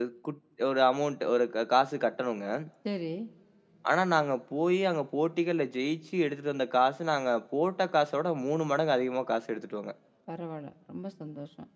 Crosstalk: none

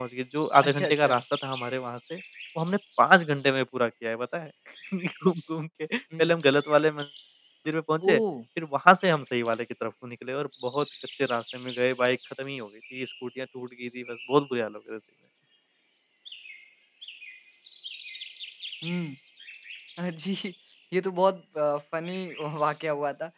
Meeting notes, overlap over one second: none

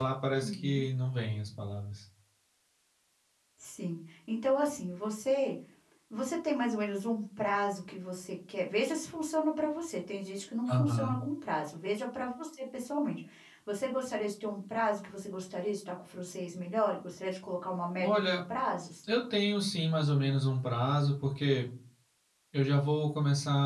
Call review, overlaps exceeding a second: none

